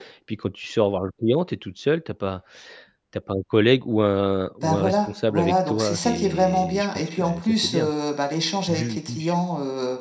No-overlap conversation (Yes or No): No